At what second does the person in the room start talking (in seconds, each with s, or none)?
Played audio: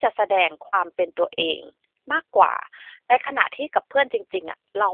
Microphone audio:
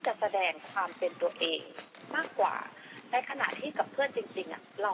none